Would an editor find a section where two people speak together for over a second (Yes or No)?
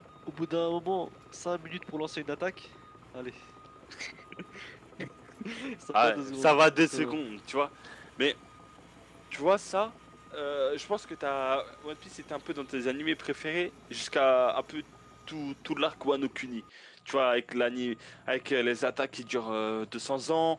Yes